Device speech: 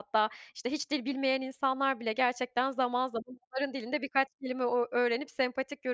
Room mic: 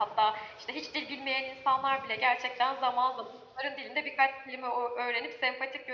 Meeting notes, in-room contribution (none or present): none